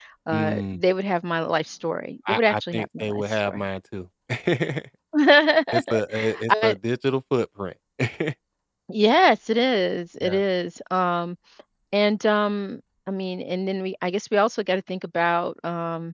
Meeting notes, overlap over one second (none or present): present